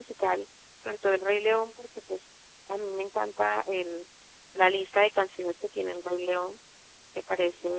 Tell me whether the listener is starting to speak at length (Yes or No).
No